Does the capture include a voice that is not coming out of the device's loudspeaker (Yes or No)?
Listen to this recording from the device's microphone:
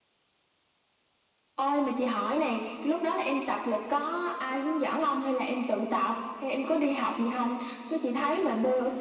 No